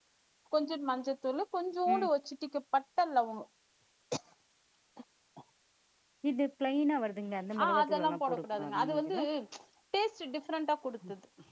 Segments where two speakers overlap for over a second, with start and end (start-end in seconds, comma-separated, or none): 7.6-9.0